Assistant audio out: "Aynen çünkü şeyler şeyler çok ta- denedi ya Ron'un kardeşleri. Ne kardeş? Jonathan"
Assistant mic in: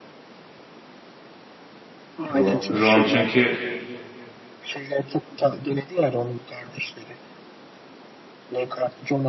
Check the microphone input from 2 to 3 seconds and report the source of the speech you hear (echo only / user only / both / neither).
both